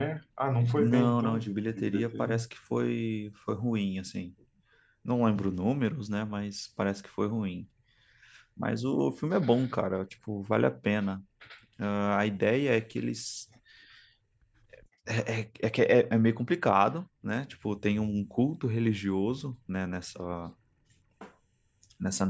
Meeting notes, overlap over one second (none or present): present